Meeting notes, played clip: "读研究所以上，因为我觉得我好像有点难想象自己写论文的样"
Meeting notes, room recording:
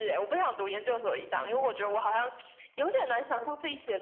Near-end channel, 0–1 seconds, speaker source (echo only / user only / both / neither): echo only